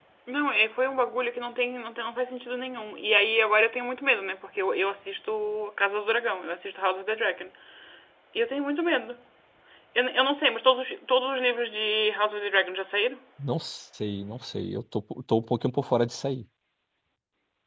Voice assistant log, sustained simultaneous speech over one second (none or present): none